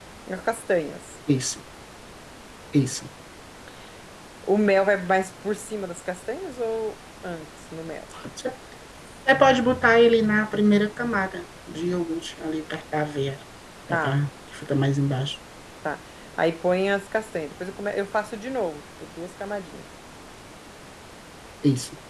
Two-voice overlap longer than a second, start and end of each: none

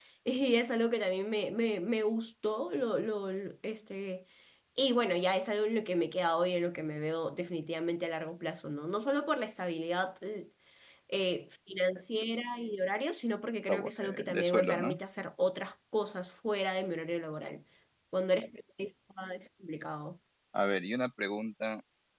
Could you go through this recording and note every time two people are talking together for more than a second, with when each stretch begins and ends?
13.7-14.9

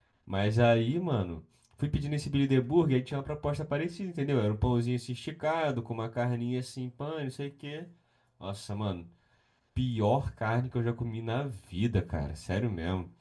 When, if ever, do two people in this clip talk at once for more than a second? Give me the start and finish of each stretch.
none

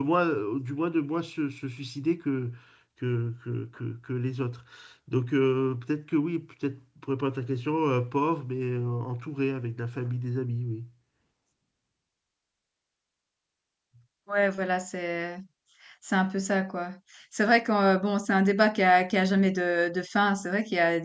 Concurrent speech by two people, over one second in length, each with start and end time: none

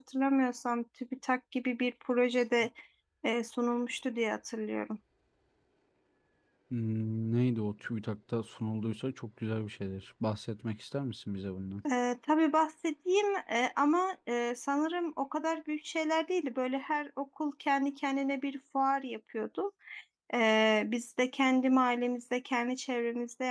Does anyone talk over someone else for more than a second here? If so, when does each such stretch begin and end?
none

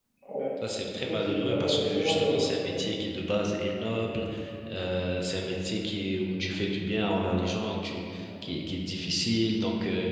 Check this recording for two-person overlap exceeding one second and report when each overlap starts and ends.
0.9-2.5

